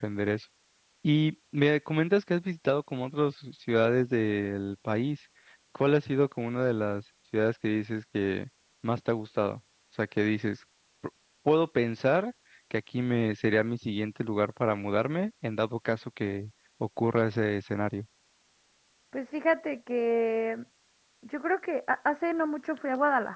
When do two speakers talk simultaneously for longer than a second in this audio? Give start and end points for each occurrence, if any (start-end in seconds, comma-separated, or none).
none